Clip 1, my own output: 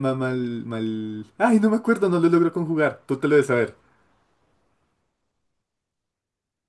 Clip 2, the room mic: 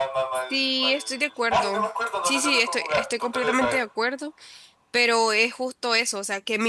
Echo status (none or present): present